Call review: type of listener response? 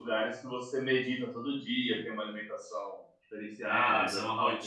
taking over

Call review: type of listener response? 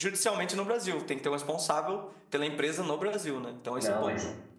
taking over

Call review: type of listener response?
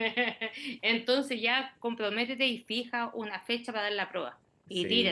taking over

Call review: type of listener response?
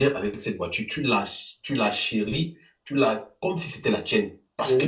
listening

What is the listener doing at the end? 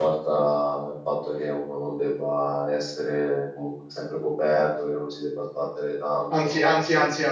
taking over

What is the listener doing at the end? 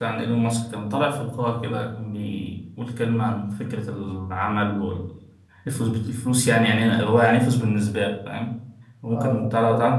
taking over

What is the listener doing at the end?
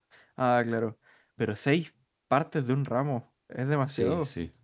taking over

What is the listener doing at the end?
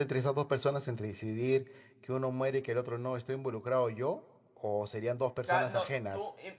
taking over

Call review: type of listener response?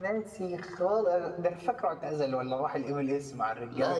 taking over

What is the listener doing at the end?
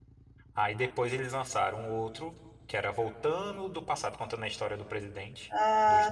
taking over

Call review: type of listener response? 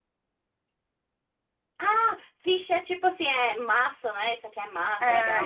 taking over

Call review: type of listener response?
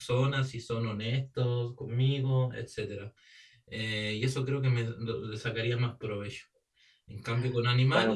listening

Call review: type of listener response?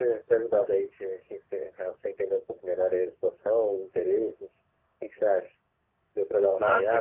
taking over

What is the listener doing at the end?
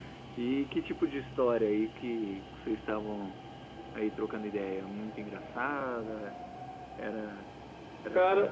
taking over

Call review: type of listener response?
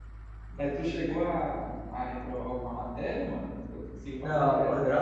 taking over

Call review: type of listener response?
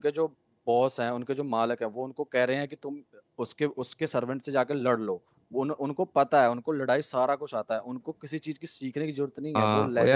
taking over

